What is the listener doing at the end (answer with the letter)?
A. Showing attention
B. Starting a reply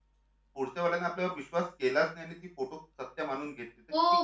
B